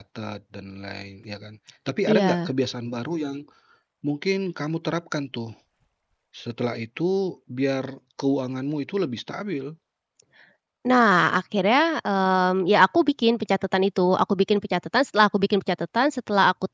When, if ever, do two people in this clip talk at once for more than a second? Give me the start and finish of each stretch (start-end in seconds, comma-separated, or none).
none